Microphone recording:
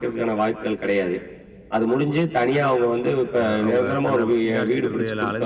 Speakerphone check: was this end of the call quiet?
No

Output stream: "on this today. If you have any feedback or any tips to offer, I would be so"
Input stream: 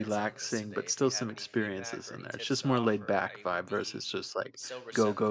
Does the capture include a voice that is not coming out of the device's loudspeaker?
Yes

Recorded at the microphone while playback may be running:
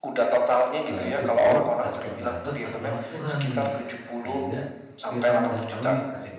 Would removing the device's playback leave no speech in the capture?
No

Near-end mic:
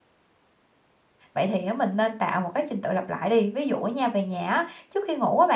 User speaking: Yes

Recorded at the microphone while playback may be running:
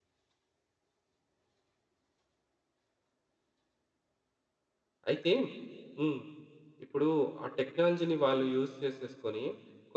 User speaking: Yes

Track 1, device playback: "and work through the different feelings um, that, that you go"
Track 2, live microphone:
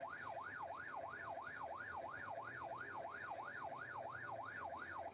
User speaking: No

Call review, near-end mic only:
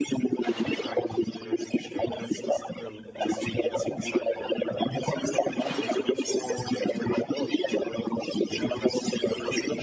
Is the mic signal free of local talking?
No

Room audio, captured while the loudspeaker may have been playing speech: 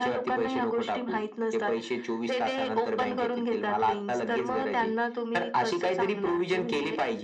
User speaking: No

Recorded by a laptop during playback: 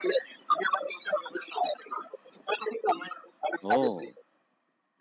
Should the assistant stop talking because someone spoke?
Yes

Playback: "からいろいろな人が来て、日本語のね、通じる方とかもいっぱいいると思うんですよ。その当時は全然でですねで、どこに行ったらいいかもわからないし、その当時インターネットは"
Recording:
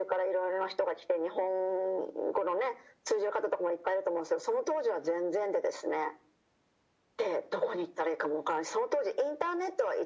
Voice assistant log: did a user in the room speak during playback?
No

